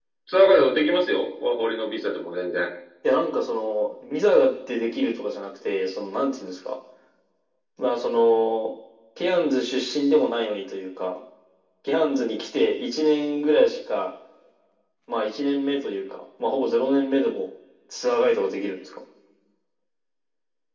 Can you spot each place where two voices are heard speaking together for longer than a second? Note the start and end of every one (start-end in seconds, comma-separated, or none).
none